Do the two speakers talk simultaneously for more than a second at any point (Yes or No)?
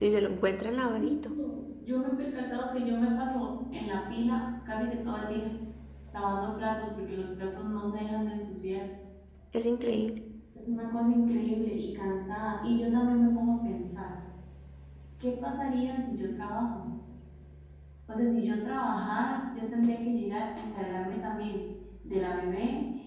No